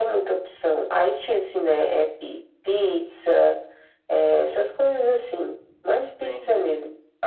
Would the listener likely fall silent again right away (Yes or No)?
No